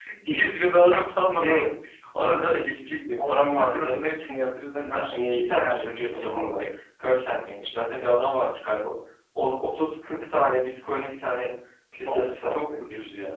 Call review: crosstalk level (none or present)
present